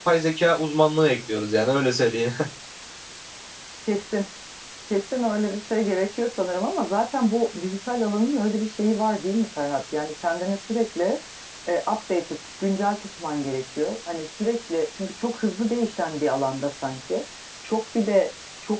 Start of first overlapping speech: none

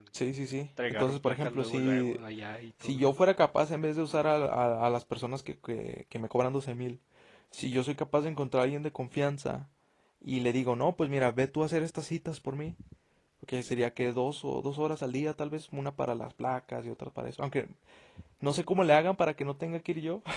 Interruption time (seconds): 0.9 s

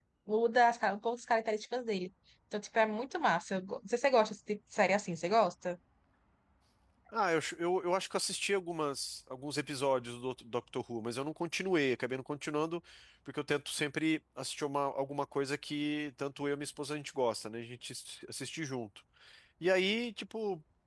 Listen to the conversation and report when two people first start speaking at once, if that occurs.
none

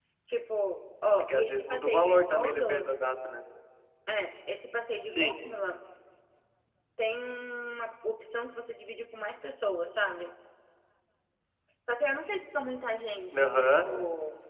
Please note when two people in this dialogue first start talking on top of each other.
1.2 s

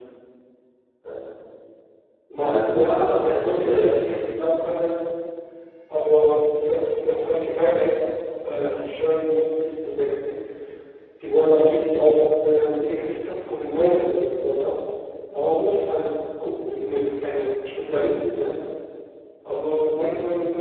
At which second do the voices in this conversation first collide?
2.4 s

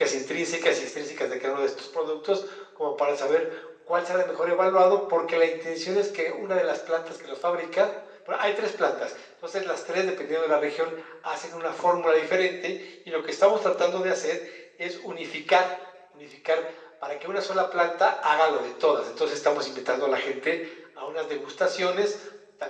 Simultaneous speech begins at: none

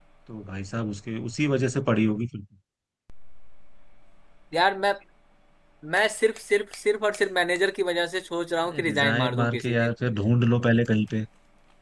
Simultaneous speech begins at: 8.7 s

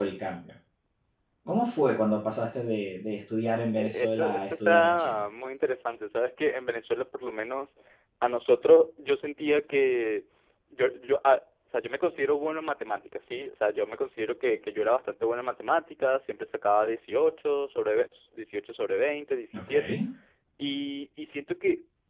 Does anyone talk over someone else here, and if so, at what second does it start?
3.7 s

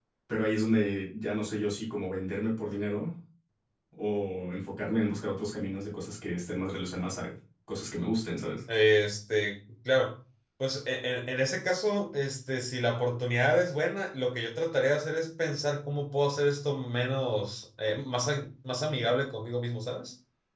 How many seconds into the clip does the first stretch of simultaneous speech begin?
none

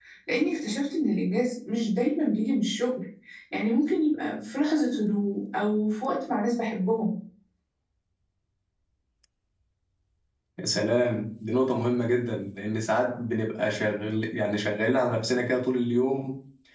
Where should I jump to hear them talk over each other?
none

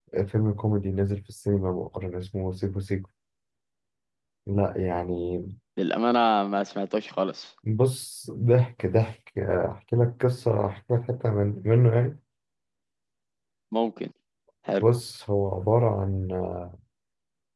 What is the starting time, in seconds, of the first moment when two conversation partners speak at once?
none

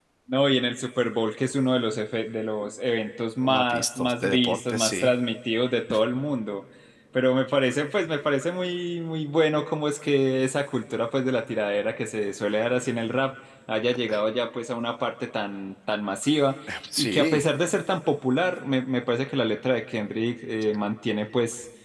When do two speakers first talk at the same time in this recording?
3.4 s

